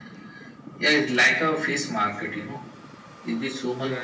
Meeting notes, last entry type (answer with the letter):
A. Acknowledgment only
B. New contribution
A